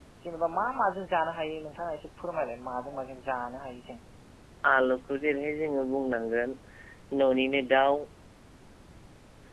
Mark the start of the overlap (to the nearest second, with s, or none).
none